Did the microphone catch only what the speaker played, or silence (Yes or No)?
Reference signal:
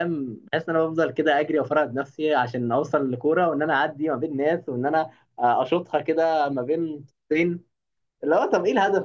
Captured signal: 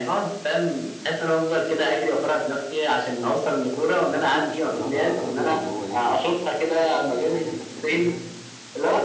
No